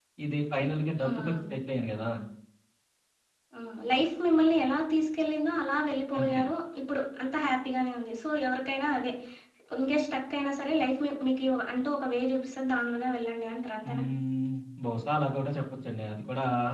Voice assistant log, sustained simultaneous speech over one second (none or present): none